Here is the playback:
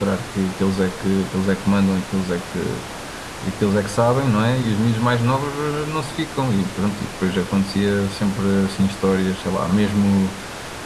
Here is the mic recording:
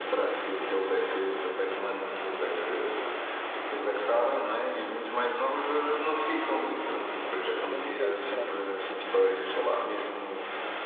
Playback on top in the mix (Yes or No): Yes